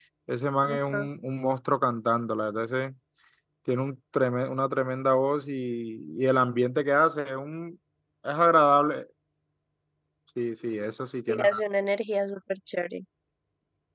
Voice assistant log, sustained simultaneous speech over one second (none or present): none